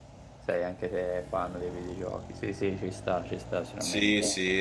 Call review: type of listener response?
taking over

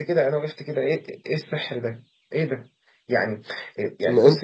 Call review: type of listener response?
listening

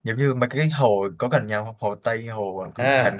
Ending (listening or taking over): taking over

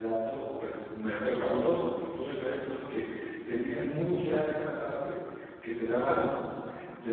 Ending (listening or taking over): listening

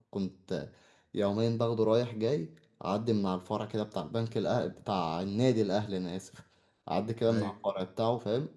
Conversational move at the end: listening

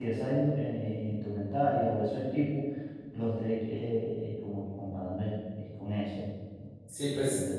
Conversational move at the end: taking over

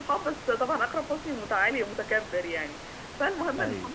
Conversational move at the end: listening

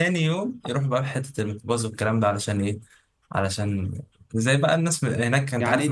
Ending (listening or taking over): taking over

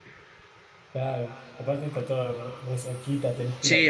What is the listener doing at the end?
taking over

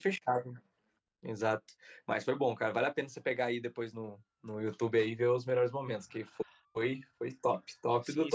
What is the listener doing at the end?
taking over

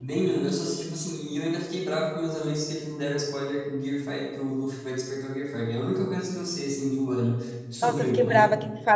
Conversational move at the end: taking over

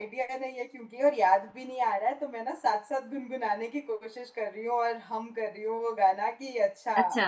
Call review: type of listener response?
listening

